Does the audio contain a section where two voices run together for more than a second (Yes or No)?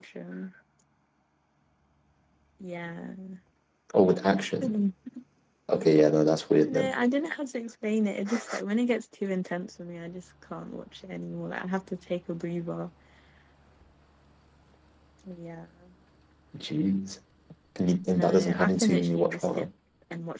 Yes